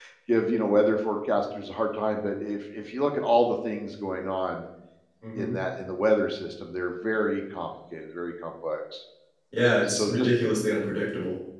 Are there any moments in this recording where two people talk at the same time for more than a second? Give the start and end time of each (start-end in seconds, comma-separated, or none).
none